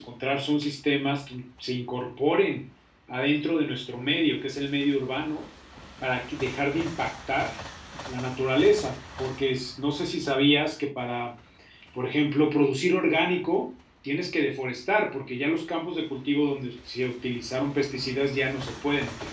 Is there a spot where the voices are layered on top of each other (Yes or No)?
No